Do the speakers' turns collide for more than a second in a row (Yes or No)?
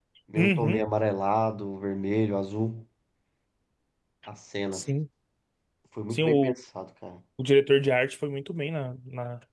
No